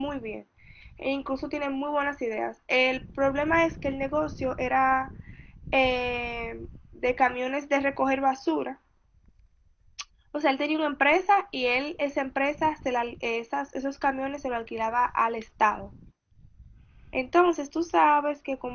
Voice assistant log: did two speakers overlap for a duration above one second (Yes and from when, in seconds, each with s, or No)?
No